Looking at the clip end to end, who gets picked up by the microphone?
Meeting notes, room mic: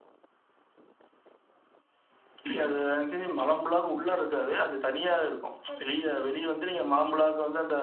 both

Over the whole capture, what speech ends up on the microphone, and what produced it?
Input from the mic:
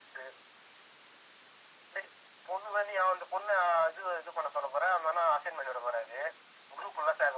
echo only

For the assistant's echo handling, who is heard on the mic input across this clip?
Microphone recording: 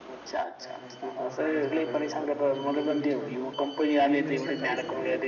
both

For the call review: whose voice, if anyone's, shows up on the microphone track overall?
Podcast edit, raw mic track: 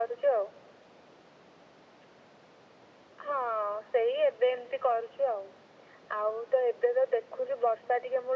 echo only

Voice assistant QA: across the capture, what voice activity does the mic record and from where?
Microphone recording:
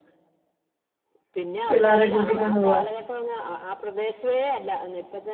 both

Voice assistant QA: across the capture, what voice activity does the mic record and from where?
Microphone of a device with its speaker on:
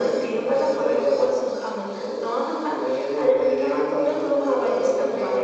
echo only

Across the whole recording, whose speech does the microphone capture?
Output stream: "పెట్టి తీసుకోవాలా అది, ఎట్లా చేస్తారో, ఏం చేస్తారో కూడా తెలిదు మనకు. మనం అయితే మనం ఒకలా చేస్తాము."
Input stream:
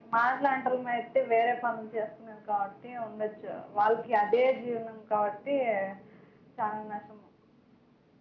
user only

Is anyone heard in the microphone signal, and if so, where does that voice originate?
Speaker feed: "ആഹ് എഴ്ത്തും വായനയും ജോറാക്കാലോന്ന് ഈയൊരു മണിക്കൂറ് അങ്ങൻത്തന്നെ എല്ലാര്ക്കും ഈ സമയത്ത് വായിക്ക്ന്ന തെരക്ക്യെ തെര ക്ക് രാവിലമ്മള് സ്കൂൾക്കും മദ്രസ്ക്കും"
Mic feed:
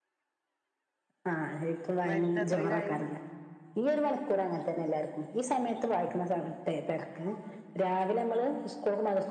both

